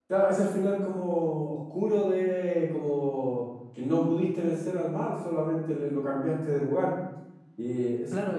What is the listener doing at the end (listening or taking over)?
taking over